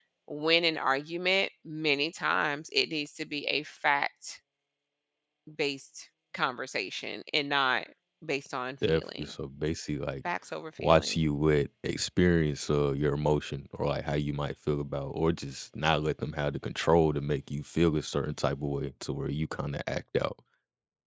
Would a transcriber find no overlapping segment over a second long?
Yes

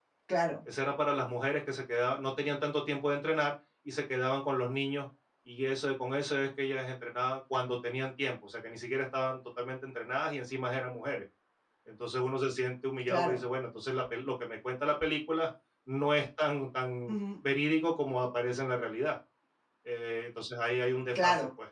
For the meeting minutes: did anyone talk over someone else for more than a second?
No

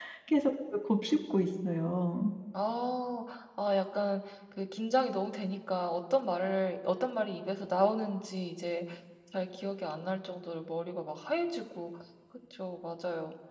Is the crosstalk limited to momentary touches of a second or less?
Yes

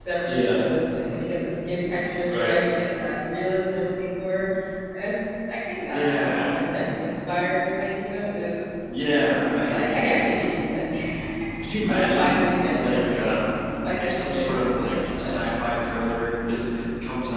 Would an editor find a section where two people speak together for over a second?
Yes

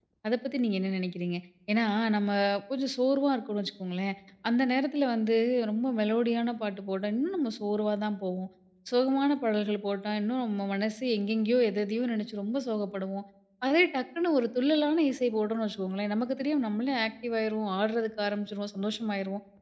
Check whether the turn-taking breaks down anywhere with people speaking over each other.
No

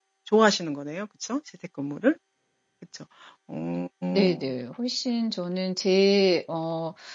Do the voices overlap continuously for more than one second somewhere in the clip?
No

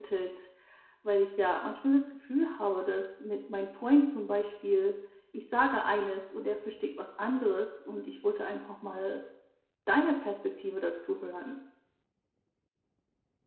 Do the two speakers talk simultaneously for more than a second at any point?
No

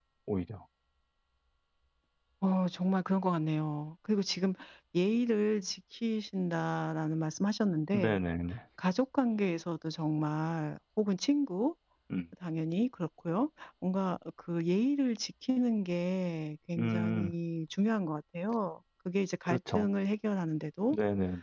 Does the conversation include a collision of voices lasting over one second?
No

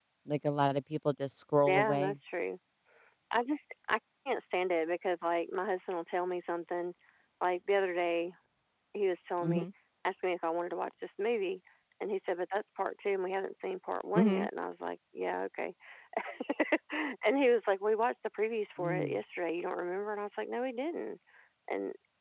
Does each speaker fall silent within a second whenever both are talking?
Yes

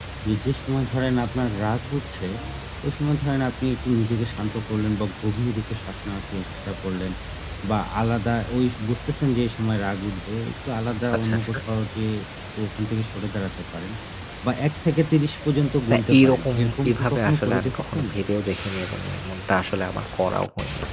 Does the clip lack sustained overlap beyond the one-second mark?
No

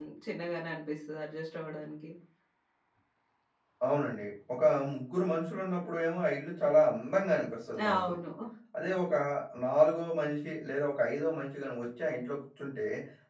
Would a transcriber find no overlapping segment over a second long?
Yes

